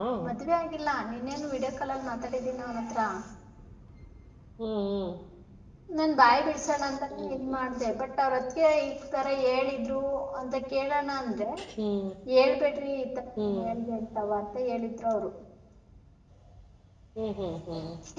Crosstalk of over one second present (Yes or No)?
No